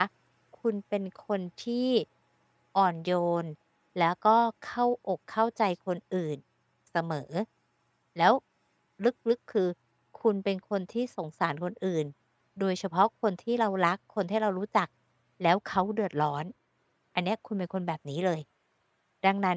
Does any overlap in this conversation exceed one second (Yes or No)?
No